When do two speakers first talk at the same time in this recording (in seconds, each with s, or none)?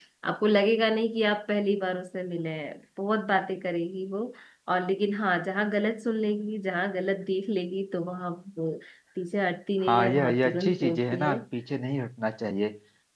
9.8 s